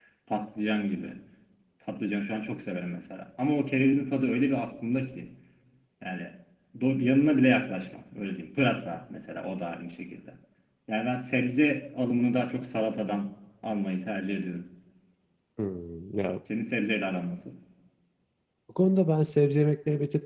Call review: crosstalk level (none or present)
none